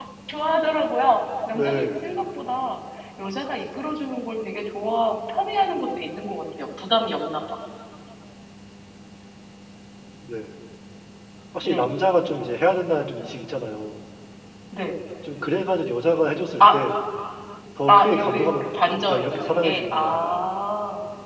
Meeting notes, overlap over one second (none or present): present